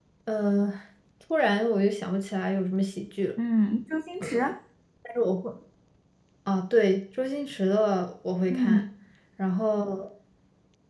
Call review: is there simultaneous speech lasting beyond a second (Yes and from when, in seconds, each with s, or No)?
No